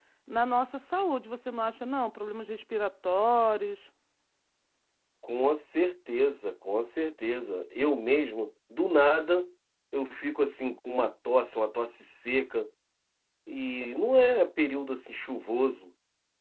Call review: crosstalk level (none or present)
none